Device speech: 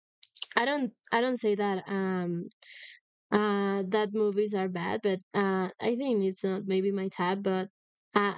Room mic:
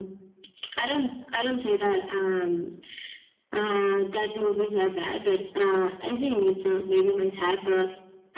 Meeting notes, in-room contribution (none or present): none